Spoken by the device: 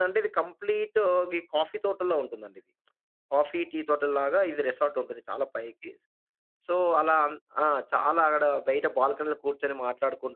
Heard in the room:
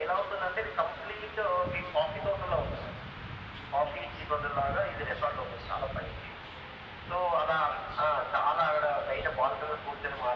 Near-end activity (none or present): none